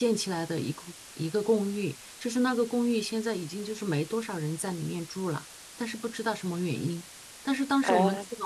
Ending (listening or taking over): listening